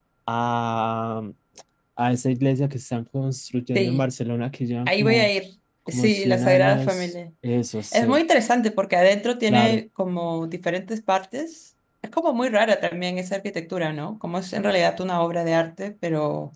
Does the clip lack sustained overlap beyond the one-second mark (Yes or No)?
No